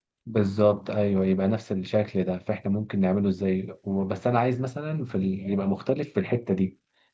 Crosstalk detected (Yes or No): No